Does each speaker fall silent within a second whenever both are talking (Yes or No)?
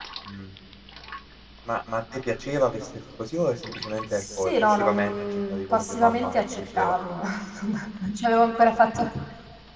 No